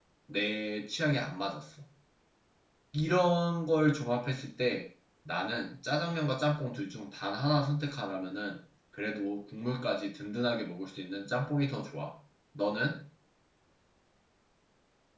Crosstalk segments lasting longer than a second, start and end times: none

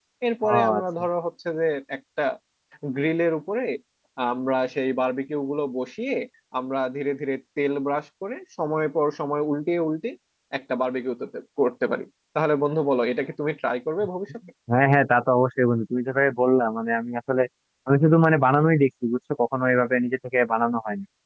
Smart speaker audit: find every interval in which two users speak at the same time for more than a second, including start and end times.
none

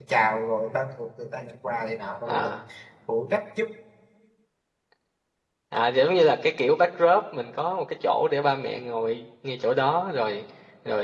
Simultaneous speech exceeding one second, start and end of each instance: none

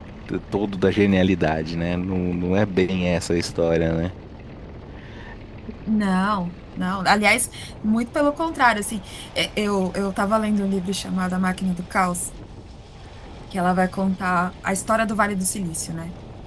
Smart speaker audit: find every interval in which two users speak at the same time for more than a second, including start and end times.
none

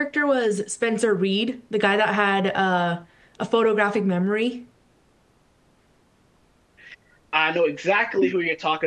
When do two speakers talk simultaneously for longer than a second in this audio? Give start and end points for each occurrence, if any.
none

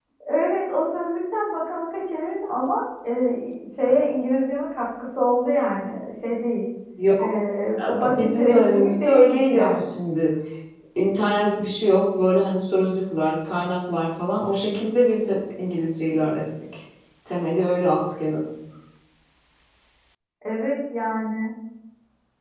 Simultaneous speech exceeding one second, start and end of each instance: 8.1-9.8

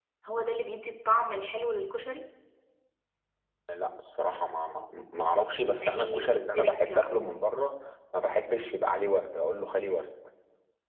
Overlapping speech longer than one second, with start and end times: 5.8-7.1

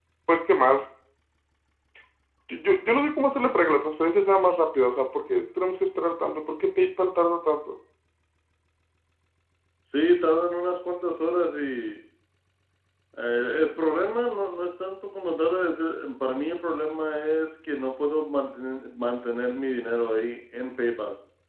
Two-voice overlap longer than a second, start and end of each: none

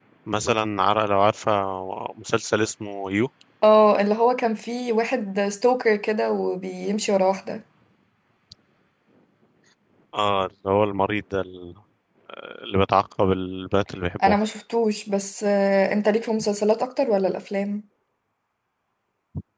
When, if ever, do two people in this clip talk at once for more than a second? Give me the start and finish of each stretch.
none

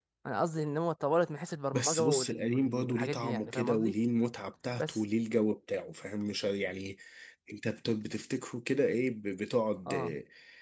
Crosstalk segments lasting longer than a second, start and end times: 1.7-3.9

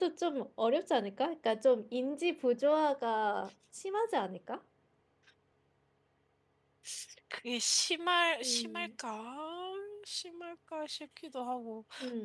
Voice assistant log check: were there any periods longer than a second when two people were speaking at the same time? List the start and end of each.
none

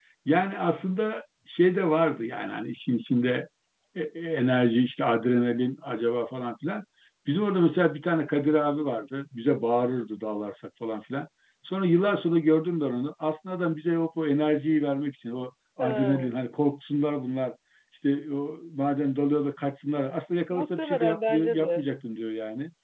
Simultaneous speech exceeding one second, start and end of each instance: 20.5-21.8

